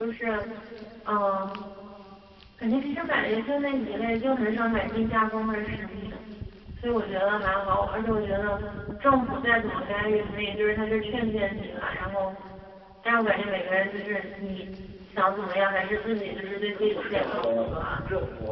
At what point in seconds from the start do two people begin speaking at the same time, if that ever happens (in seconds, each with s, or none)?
16.7 s